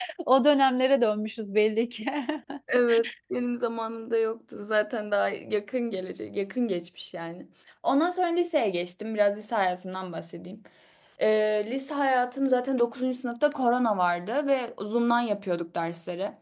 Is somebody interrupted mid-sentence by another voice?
No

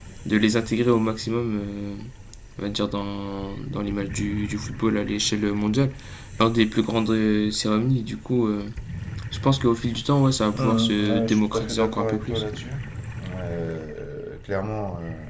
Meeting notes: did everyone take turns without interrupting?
No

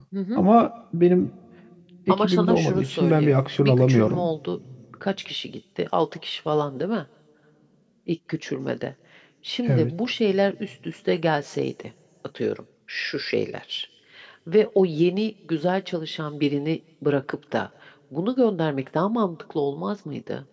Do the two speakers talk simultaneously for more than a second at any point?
Yes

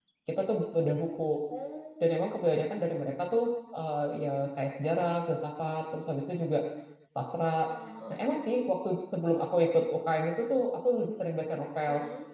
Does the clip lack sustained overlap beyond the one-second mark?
Yes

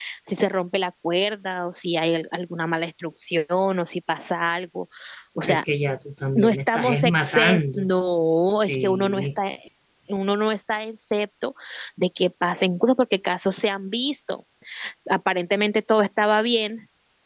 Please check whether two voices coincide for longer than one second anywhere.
Yes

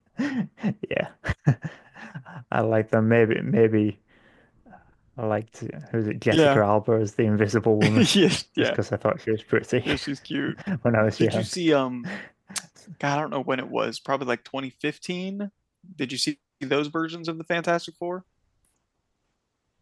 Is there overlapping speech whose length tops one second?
No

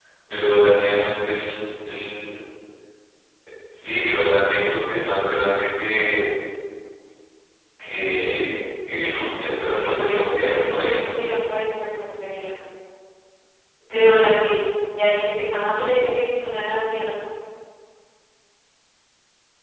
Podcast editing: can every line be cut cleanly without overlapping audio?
No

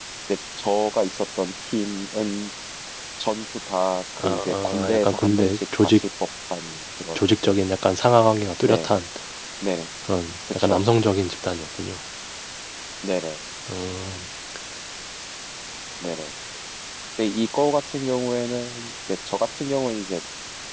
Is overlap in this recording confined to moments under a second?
No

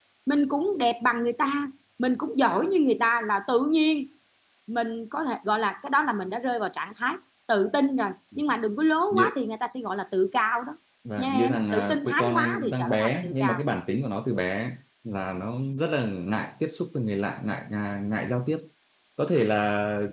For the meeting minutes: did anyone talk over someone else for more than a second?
Yes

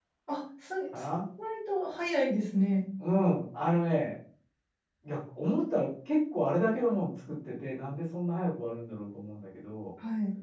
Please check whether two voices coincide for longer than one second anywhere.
No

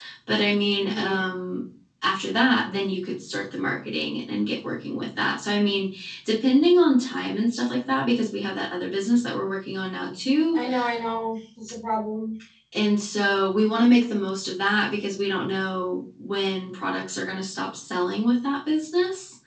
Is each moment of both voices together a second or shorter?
Yes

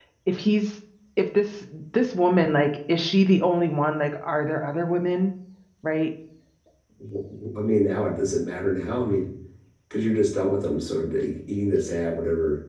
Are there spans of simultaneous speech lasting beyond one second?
No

